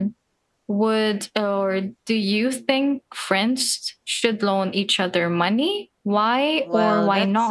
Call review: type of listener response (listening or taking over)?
taking over